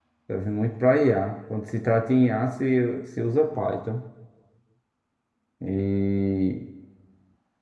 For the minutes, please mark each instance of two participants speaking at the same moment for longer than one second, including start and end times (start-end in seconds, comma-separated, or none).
none